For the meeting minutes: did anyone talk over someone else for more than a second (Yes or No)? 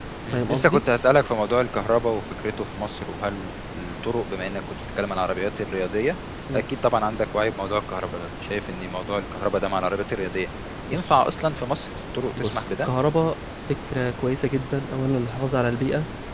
No